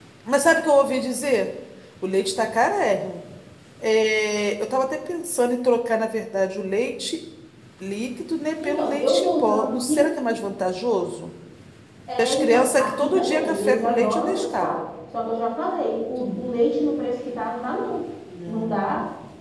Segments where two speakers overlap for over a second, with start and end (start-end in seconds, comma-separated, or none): 8.6-10.0, 12.2-14.7